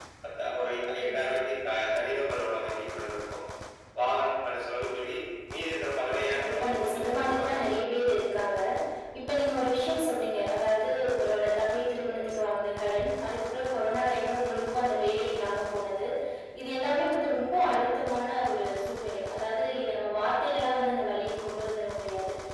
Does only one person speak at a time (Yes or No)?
No